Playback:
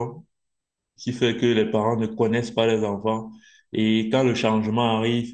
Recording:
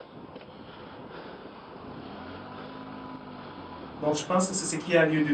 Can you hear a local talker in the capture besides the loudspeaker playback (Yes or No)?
Yes